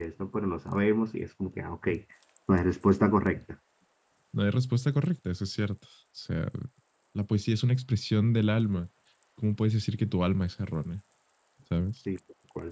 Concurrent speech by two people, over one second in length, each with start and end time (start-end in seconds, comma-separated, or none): none